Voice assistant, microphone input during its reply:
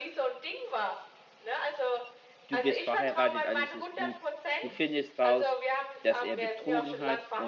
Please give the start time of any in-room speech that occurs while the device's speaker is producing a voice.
2.5 s

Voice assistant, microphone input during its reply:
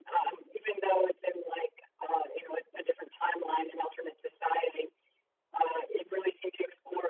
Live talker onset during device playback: none

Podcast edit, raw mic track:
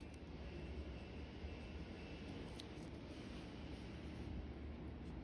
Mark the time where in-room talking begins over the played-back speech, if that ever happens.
none

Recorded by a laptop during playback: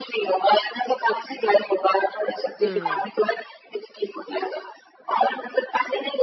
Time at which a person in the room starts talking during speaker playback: 2.6 s

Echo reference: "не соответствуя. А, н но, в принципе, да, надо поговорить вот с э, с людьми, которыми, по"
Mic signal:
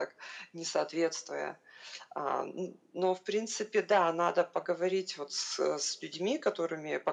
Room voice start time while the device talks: none

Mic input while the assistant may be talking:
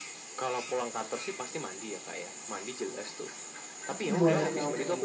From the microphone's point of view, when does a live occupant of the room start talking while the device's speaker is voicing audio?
3.9 s

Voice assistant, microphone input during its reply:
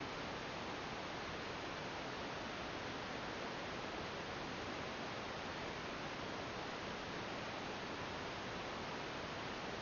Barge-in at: none

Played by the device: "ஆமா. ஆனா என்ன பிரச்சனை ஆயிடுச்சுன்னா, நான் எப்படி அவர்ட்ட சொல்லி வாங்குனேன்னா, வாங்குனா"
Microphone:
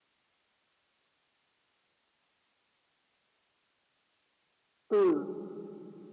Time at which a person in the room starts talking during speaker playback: 4.9 s

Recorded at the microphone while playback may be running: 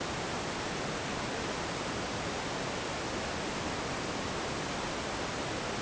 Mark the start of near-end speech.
none

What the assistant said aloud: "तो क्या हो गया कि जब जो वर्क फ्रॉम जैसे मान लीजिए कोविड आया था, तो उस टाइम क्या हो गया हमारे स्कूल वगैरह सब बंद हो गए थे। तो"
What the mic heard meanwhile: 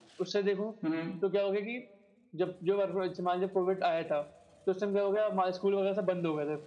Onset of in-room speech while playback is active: 0.8 s

